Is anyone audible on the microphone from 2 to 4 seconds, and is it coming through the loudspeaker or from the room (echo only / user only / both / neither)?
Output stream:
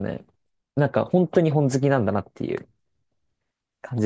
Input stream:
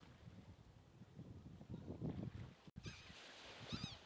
neither